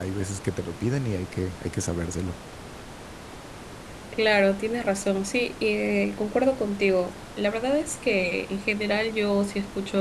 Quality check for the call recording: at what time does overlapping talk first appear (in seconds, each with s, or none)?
none